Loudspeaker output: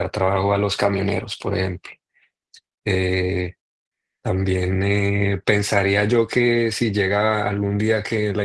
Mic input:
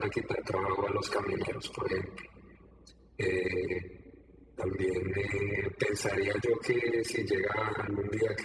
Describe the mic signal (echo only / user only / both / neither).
echo only